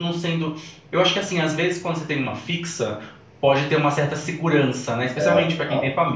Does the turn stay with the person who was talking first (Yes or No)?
Yes